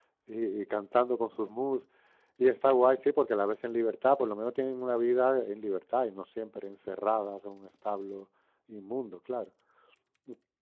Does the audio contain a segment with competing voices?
No

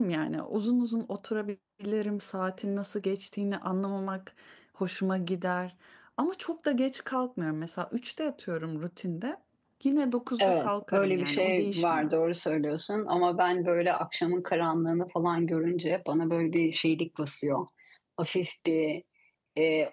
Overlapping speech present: Yes, from 10.4 s

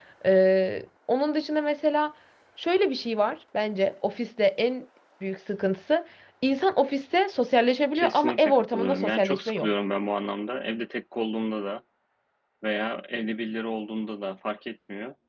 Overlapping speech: Yes, from 8.0 s

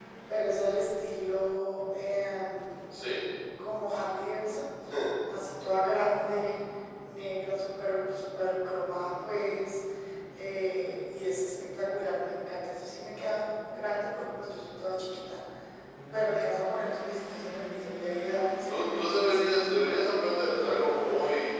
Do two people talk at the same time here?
Yes, from 18.6 s

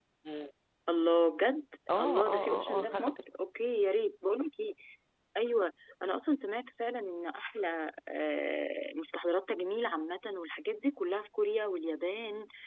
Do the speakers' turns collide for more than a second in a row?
Yes, from 1.9 s

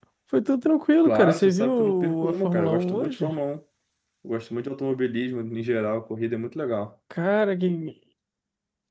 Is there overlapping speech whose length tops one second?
Yes, from 1.0 s

